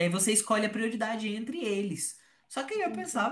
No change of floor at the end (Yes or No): Yes